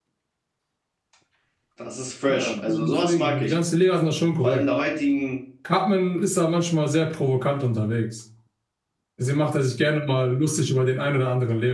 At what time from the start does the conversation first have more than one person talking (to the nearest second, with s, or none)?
2 s